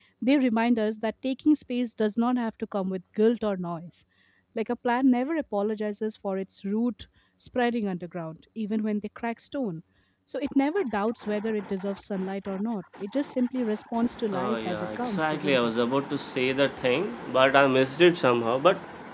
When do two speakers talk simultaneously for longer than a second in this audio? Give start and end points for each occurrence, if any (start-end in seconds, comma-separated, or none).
14.3-15.7